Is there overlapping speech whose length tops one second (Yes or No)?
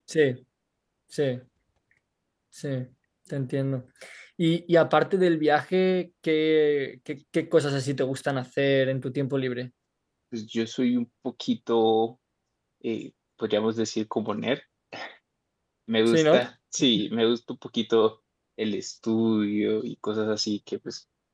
No